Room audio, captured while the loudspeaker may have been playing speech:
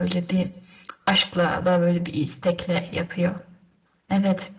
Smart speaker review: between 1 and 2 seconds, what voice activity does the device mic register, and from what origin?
user only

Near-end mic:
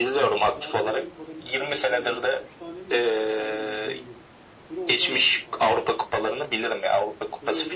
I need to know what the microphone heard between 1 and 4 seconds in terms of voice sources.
both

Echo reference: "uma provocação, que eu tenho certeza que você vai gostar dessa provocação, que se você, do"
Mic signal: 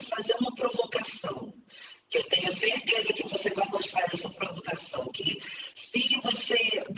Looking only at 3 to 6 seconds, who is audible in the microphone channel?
echo only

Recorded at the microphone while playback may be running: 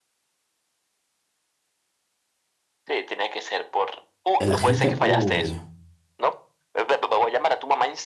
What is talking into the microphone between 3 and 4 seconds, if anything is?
echo only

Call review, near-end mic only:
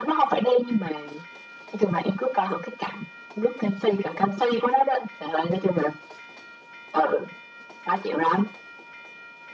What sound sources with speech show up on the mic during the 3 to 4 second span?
echo only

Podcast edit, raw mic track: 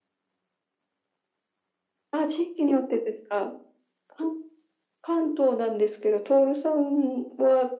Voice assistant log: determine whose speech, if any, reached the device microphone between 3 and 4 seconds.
echo only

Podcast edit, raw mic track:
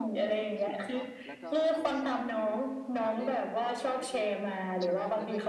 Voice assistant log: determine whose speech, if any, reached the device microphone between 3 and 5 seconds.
both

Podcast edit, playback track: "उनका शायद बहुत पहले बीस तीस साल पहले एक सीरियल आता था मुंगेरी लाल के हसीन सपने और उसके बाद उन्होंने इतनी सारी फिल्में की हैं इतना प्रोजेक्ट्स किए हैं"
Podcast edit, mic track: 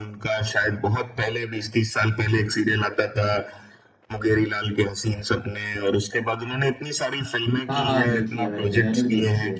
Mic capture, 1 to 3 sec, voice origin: echo only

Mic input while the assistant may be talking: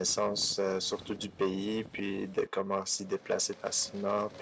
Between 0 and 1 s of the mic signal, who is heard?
echo only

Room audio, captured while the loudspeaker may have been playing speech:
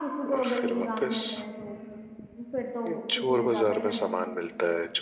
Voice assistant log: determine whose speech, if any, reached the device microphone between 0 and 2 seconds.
both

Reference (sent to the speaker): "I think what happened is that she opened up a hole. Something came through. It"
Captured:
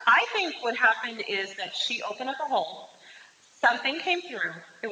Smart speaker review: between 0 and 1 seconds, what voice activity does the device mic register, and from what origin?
echo only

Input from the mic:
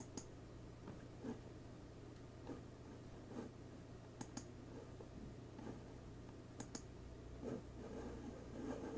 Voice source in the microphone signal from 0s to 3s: neither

